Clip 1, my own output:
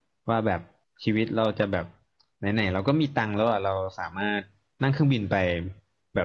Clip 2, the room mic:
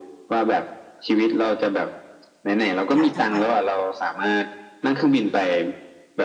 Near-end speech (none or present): present